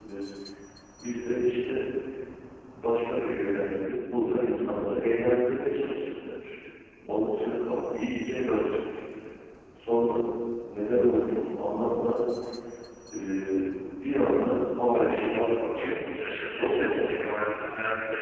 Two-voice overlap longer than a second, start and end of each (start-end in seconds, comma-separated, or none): 14.9-17.2